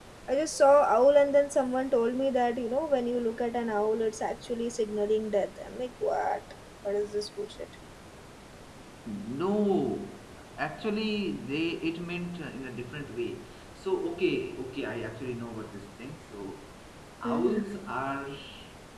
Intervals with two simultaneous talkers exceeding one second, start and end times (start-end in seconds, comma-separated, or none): none